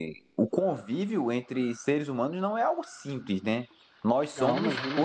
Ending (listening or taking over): listening